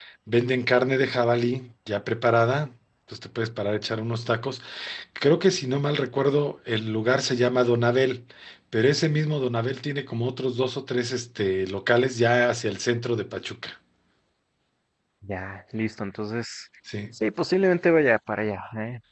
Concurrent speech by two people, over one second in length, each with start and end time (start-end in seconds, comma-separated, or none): none